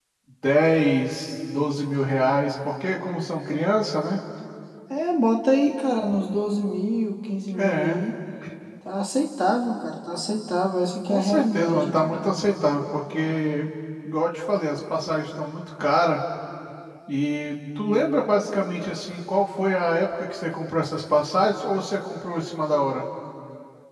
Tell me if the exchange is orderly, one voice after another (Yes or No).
No